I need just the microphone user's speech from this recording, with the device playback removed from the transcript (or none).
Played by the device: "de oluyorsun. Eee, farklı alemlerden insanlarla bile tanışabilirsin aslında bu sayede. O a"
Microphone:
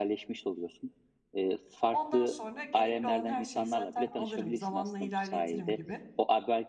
Ondan sonra gerekli olan her şeyi zaten alırım, zamanla ilerletirim gibi.